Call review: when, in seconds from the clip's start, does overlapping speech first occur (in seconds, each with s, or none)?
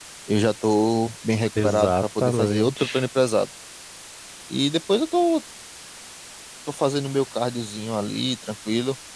1.6 s